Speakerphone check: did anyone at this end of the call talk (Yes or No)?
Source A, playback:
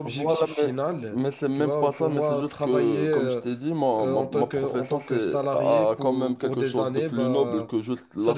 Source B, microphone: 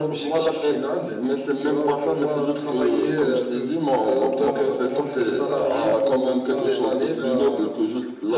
Yes